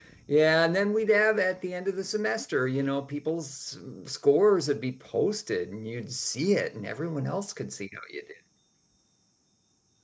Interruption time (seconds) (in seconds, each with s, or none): none